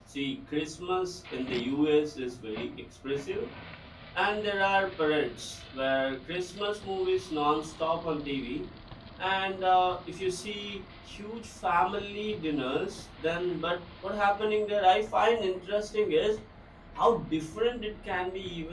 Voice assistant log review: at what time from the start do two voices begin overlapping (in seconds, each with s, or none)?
none